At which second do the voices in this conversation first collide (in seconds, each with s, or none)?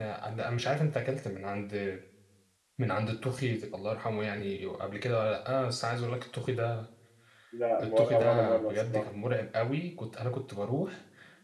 7.8 s